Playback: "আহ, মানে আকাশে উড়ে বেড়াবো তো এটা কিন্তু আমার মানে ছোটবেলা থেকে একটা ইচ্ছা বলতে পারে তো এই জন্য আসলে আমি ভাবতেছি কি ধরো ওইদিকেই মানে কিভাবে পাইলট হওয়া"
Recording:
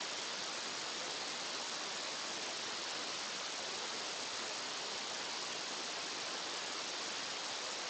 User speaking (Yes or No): No